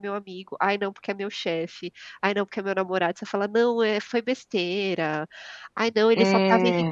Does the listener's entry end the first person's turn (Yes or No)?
No